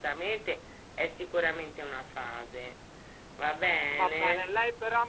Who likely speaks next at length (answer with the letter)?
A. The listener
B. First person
A